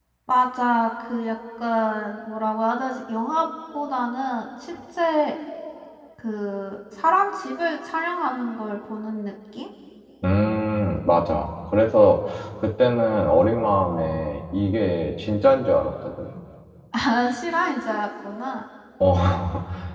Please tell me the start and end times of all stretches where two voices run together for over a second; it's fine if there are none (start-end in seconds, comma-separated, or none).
none